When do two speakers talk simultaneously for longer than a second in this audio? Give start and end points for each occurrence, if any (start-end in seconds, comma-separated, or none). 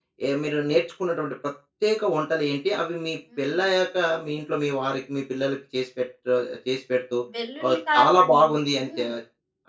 7.7-9.1